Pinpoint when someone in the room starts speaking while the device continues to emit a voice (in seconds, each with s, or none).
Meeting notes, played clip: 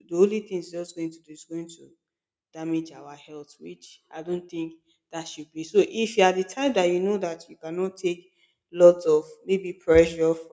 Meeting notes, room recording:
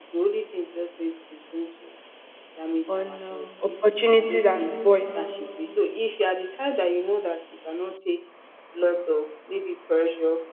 2.8 s